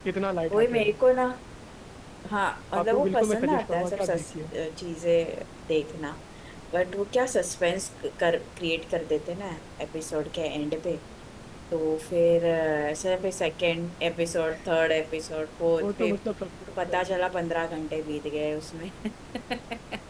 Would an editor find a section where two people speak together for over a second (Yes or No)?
Yes